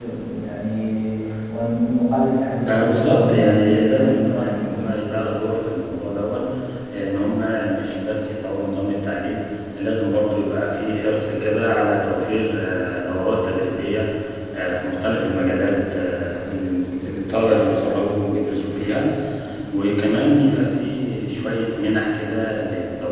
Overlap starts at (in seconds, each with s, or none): 2.7 s